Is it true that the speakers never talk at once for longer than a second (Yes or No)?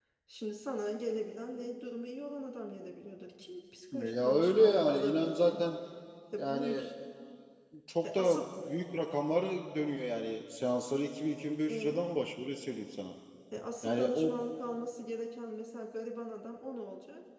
No